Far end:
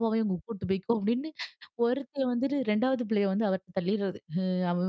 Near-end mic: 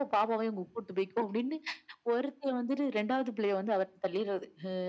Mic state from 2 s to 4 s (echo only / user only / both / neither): echo only